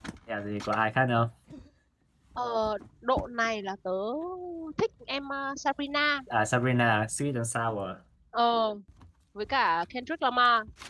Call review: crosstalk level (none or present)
none